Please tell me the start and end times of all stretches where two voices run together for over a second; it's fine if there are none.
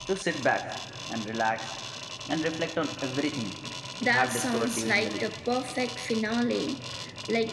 4.0-5.2

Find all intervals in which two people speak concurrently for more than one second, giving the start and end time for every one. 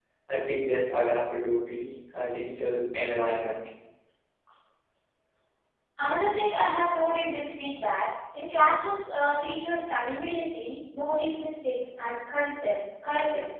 none

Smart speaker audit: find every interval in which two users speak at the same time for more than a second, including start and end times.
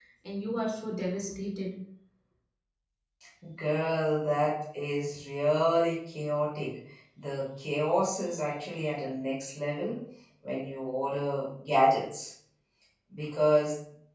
none

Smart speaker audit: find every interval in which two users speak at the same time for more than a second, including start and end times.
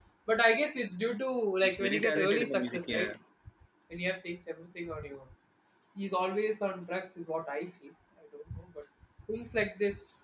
1.6-3.1

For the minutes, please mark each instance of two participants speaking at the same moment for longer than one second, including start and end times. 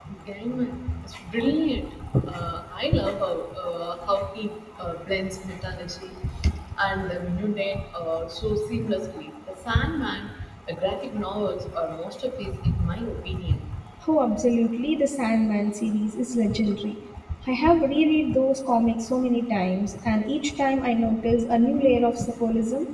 none

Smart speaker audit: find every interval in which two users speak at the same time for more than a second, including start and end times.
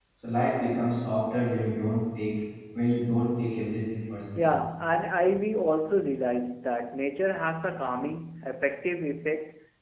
none

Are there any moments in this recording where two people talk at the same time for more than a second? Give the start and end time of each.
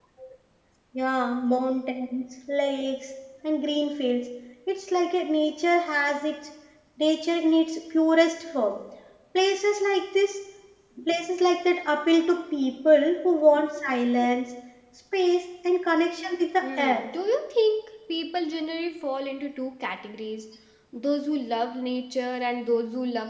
none

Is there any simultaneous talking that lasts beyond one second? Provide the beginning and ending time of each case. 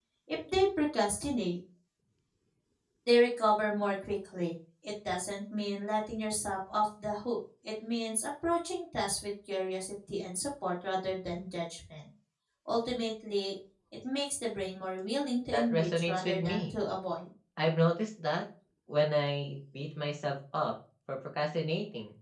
15.5-16.7

